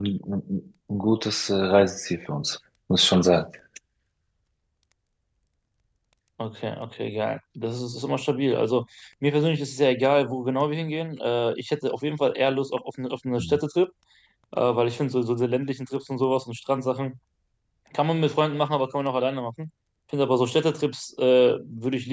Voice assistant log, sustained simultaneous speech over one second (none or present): none